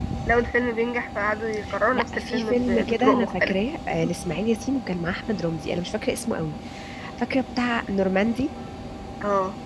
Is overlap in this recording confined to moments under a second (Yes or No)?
No